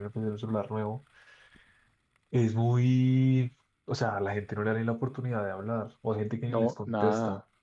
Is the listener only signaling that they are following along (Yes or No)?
No